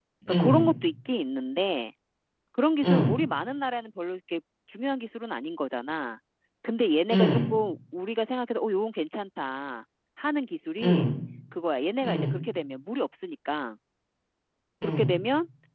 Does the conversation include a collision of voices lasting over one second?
No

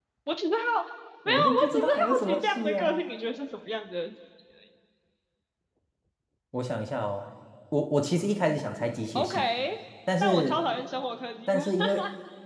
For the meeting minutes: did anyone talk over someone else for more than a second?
Yes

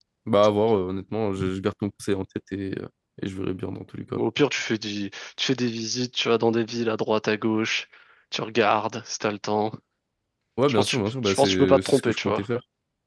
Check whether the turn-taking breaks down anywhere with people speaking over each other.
Yes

